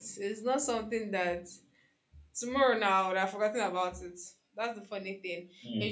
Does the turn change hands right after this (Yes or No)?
No